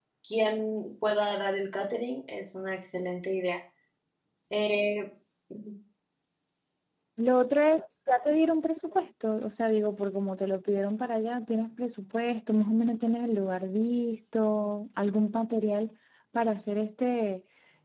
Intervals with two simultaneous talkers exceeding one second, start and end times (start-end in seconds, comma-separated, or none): none